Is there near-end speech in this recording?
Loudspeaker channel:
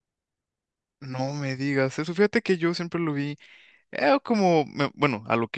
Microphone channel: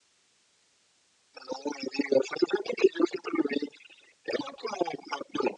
No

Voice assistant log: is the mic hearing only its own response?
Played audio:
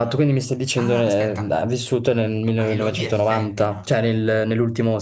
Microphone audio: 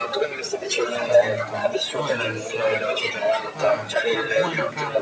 No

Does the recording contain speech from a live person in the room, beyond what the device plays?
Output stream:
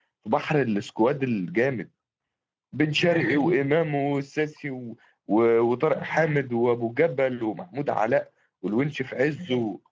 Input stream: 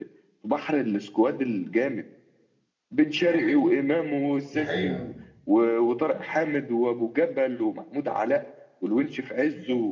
Yes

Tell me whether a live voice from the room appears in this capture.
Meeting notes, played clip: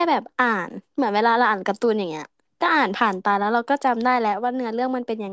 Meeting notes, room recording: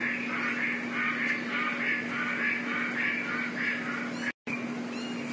No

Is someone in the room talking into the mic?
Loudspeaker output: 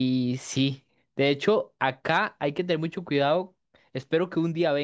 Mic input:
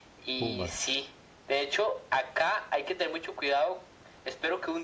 Yes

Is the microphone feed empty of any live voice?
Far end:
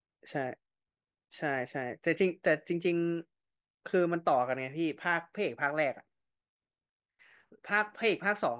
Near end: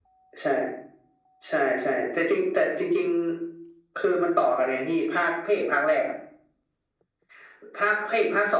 Yes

